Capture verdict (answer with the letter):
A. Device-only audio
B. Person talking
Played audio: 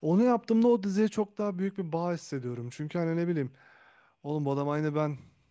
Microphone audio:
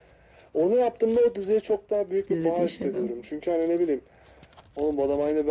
B